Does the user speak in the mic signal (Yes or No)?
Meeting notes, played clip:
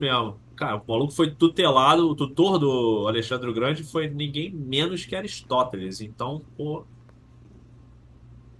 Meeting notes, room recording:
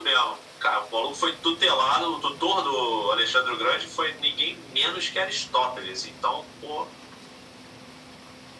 No